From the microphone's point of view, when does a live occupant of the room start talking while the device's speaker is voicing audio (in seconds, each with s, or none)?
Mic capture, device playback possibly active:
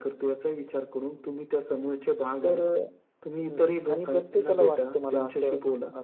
2.4 s